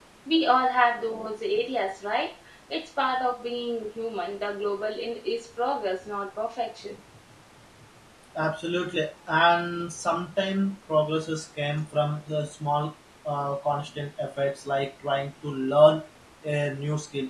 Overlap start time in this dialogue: none

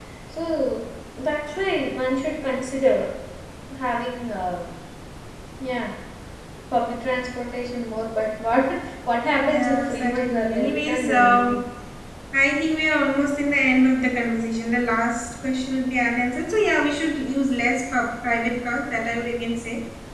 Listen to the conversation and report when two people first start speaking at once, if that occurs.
9.4 s

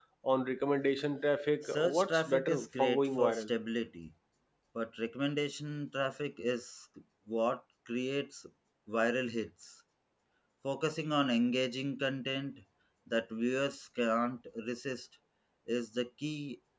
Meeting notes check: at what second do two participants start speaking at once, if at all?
1.6 s

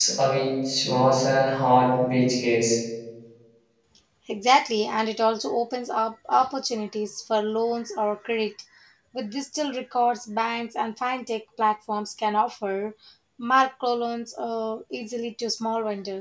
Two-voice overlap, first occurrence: none

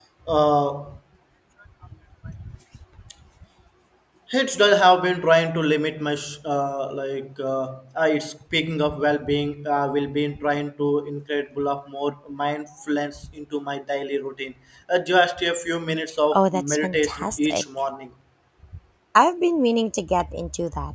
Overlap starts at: 16.3 s

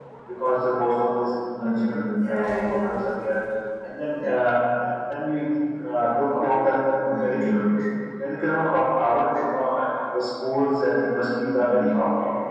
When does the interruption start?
1.6 s

